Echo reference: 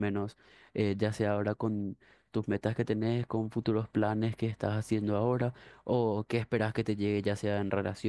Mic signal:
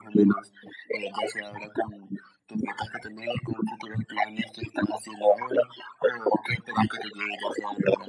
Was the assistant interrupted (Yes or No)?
No